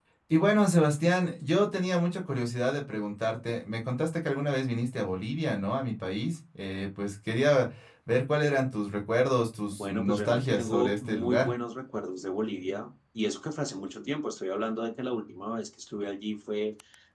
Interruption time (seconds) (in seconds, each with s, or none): 9.7 s